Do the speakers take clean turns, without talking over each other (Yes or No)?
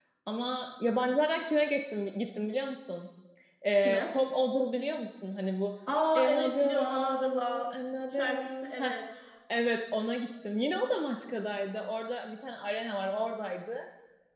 No